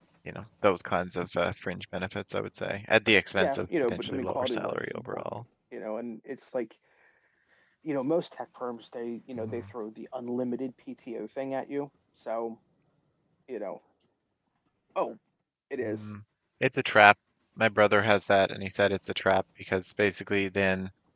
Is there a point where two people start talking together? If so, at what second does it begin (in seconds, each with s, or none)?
3.4 s